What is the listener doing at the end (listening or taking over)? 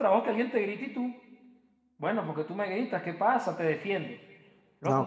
listening